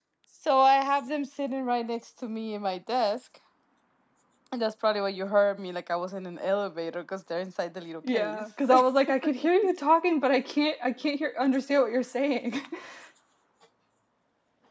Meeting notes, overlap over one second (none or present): none